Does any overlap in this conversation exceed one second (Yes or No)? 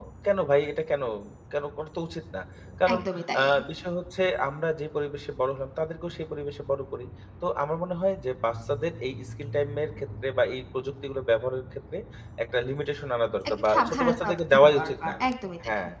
Yes